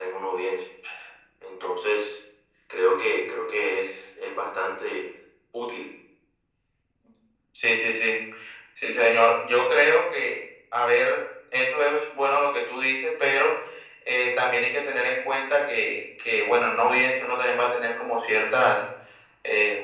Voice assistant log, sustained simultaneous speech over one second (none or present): none